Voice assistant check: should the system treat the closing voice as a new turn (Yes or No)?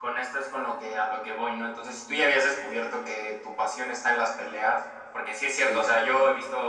No